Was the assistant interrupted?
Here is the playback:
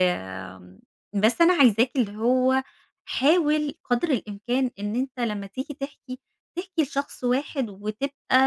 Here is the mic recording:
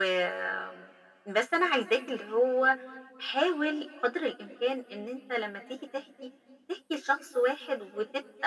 No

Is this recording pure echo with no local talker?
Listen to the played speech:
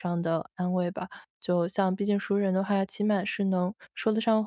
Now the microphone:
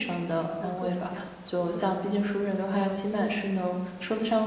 No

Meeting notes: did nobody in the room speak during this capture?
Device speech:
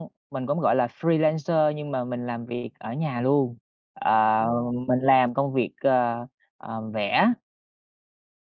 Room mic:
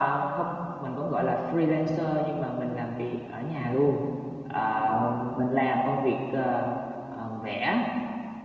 Yes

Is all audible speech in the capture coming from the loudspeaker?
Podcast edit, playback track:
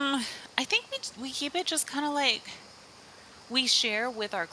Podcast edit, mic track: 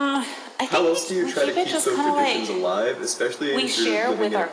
No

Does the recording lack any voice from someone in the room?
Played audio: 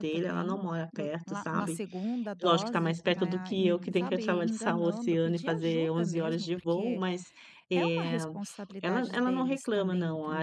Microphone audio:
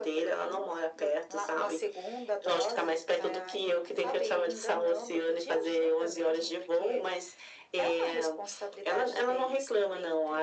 Yes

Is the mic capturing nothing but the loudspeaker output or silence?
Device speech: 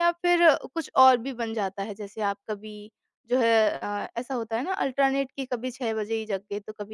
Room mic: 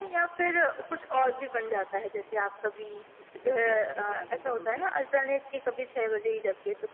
No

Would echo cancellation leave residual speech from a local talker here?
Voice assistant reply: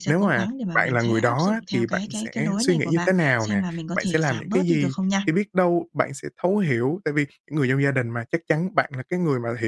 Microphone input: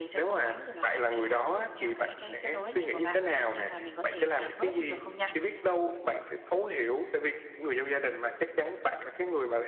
No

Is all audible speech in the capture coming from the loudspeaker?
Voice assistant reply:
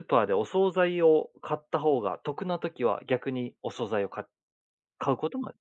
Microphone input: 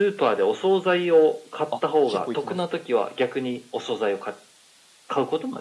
No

